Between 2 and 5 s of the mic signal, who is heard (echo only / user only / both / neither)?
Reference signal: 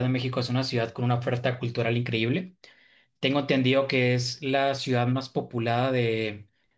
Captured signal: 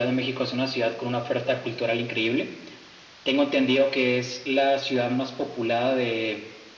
echo only